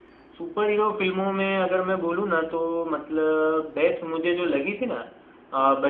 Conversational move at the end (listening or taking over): listening